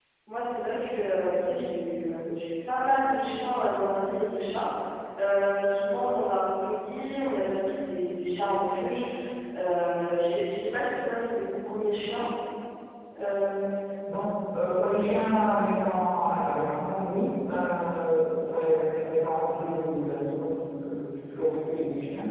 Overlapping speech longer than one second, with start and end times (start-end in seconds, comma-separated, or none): none